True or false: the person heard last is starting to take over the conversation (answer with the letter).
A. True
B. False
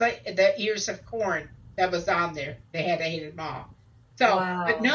B